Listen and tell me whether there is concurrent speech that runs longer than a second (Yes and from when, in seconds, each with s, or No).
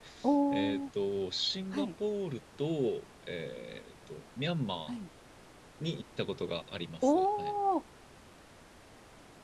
No